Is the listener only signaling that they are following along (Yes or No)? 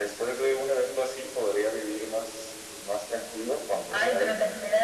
No